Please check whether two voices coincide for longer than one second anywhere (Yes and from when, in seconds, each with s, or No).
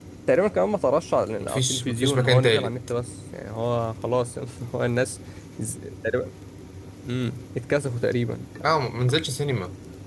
Yes, from 1.4 s